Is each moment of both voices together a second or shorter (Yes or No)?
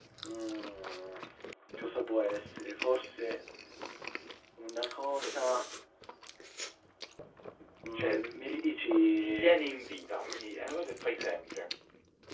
Yes